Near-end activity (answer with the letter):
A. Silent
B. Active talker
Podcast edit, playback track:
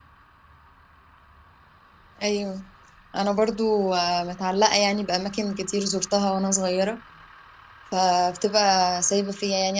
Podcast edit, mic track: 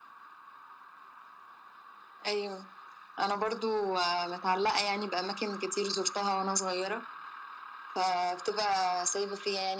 A